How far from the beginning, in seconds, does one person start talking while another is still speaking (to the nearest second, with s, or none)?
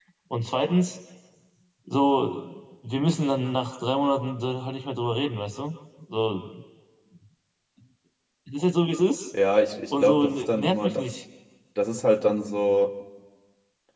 10 s